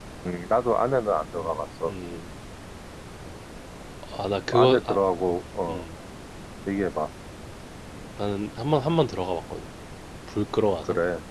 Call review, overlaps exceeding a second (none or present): present